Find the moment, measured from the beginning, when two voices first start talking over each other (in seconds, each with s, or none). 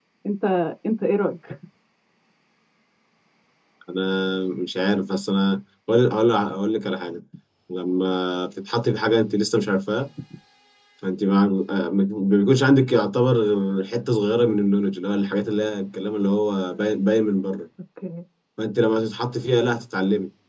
none